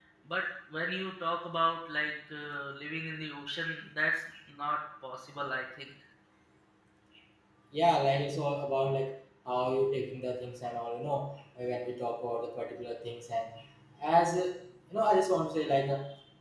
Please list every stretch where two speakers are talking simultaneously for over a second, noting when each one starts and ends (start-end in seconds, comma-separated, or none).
none